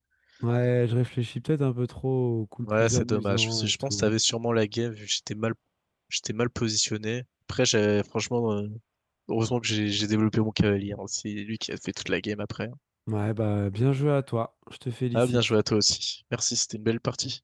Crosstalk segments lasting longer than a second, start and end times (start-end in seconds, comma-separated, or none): 2.6-4.1